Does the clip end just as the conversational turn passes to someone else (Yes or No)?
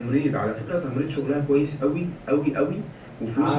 No